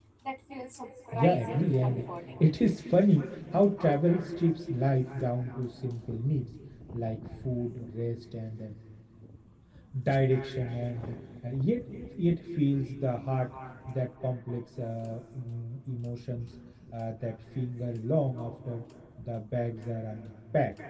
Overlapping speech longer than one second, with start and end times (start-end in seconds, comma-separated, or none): 1.1-2.4